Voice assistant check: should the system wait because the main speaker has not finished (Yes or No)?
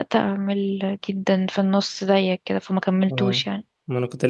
No